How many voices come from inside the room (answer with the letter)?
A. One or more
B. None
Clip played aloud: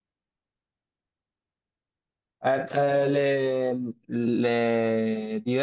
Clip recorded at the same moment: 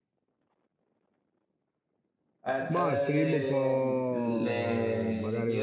A